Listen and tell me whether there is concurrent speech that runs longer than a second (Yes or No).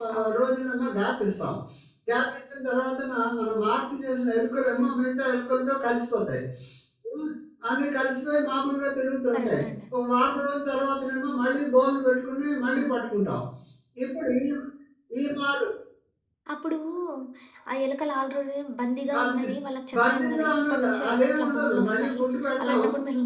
Yes